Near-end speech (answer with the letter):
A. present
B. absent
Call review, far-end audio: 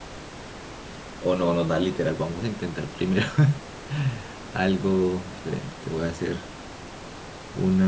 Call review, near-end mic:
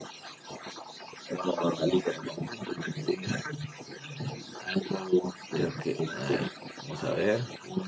A